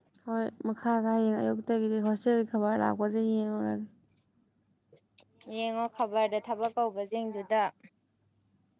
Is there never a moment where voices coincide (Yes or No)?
Yes